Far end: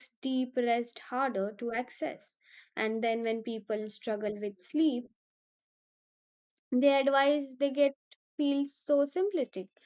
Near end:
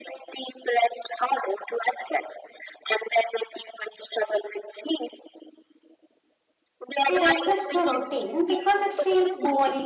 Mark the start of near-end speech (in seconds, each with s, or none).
7.0 s